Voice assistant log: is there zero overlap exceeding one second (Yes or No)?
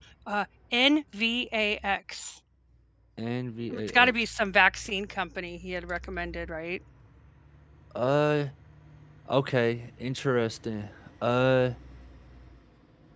Yes